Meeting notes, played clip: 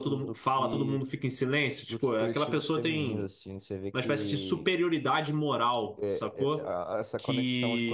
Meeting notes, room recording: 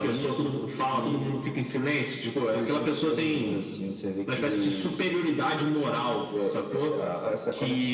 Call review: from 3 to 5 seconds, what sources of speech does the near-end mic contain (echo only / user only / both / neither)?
echo only